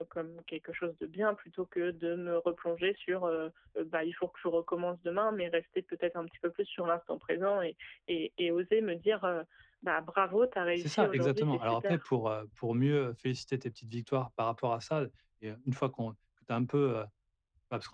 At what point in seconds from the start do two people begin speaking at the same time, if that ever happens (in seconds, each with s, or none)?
10.8 s